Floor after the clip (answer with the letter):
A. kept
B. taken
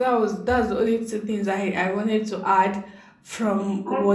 A